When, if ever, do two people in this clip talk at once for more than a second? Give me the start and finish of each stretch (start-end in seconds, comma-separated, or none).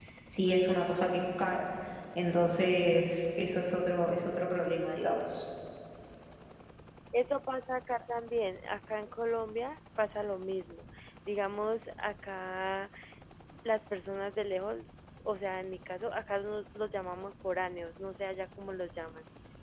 none